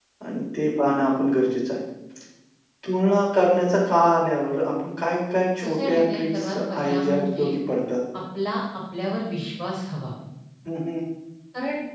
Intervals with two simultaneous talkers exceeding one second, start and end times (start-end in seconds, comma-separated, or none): 5.6-7.5